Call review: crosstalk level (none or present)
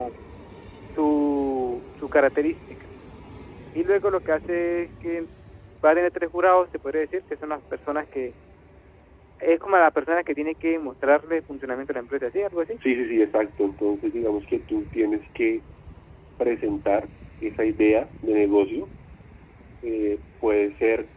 none